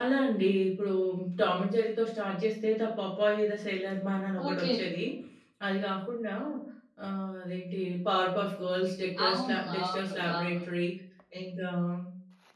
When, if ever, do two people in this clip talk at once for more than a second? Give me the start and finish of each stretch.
9.2-10.5

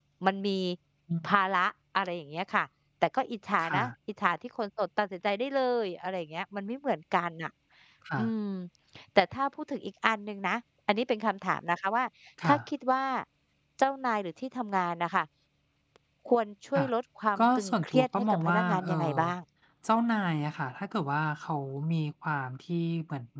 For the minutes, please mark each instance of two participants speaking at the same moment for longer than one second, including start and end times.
17.4-19.2

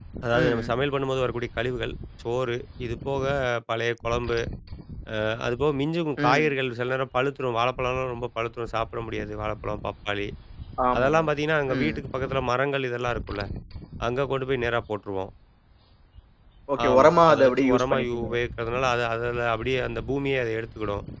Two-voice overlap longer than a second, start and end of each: 16.9-18.3

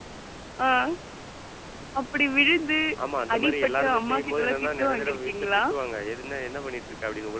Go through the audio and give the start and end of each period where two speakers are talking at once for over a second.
3.4-5.6

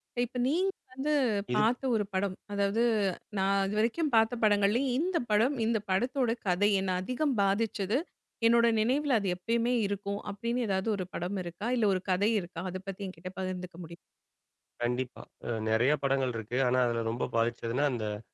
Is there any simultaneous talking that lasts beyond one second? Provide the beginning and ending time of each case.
none

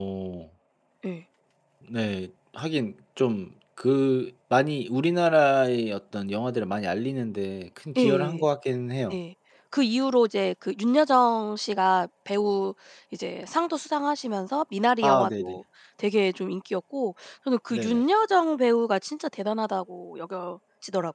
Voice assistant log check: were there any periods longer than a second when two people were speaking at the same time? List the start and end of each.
none

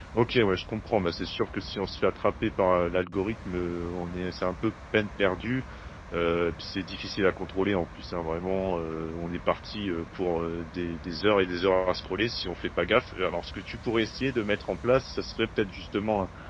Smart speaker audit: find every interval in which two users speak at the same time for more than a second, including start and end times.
none

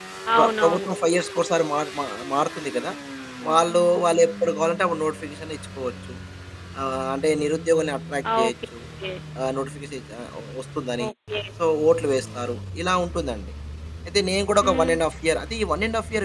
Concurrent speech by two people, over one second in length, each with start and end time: none

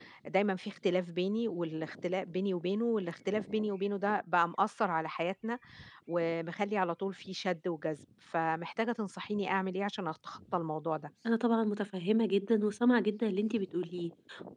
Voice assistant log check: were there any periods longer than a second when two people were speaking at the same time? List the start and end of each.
none

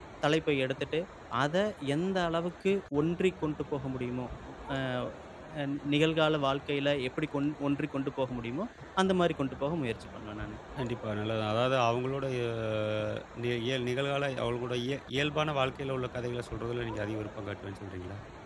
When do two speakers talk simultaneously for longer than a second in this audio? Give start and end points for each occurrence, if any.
none

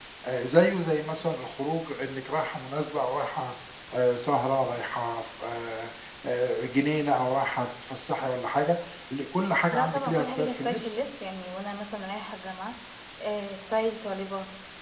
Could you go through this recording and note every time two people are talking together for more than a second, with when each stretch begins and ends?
9.7-11.0

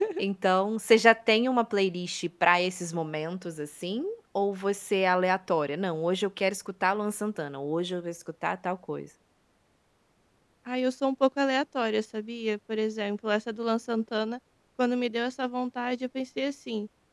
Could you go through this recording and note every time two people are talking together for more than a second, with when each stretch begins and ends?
none

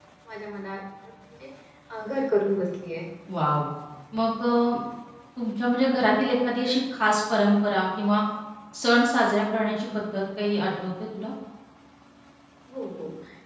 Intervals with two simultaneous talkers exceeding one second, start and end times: none

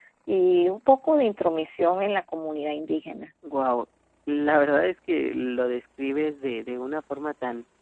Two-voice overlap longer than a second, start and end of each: none

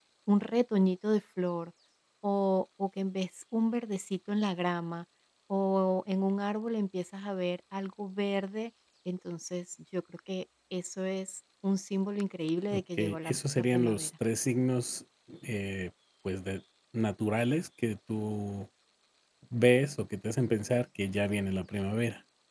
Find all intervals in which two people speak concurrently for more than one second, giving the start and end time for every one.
12.7-14.1

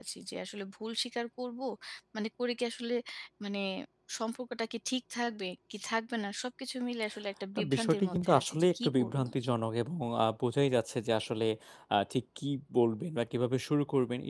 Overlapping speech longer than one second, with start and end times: 7.5-9.2

